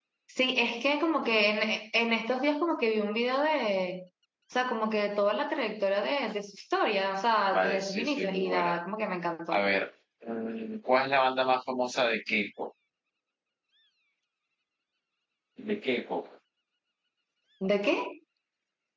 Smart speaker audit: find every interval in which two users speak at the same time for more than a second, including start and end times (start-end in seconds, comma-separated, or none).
7.5-8.8